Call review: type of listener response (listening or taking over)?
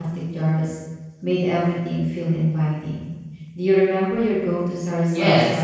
taking over